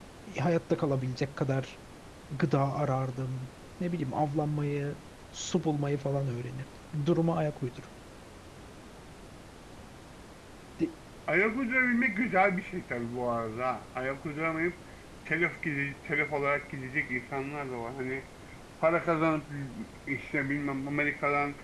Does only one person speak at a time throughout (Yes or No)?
Yes